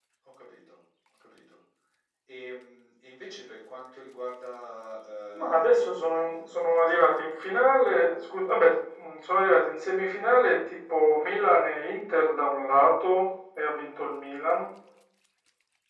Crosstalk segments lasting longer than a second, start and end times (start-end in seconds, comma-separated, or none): 5.3-7.3